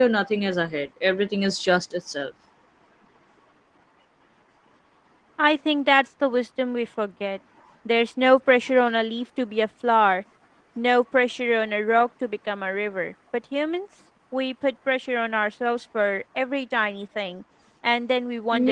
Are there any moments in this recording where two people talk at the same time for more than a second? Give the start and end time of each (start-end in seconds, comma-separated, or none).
none